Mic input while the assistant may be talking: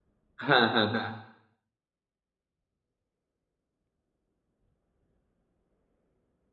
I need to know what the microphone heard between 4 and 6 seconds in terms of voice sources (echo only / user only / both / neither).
neither